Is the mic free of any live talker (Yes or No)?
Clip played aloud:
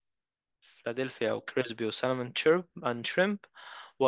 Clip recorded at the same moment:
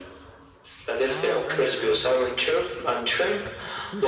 No